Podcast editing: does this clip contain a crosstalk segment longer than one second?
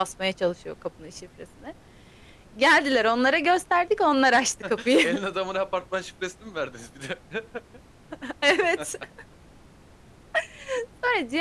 No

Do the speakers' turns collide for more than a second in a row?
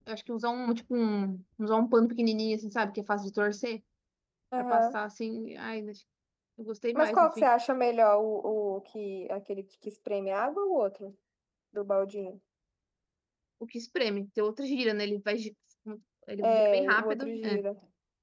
Yes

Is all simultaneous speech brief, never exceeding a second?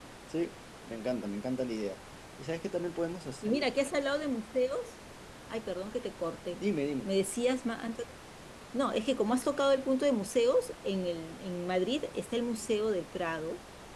Yes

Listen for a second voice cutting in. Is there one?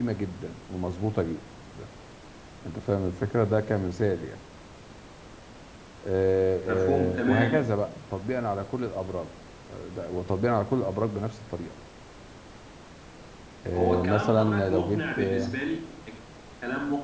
Yes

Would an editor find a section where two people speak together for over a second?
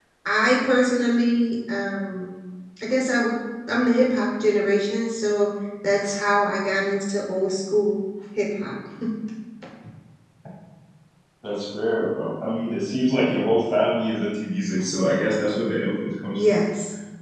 No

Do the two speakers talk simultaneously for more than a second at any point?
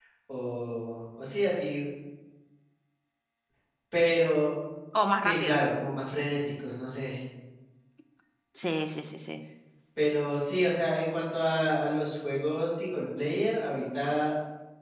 No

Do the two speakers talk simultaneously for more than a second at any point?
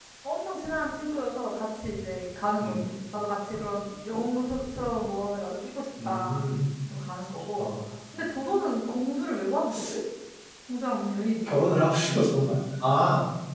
No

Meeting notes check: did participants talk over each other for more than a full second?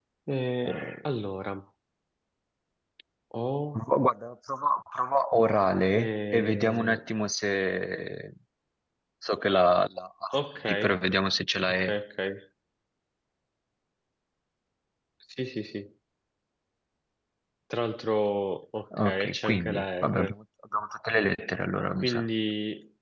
Yes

